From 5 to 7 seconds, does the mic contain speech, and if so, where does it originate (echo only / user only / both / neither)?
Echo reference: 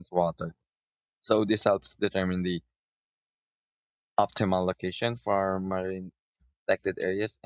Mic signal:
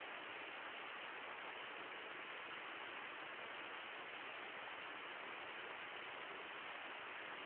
neither